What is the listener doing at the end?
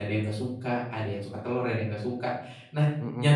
listening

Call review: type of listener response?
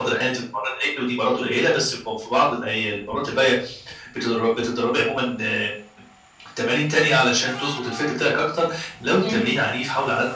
listening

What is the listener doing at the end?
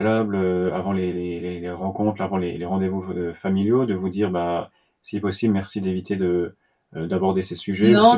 taking over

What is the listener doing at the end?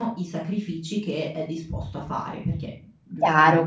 taking over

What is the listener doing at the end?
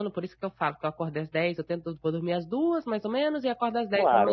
taking over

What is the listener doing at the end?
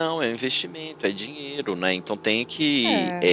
listening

